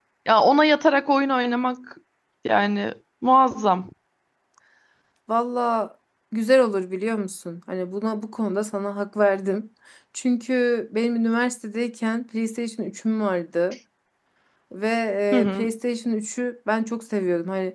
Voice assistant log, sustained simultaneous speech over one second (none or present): none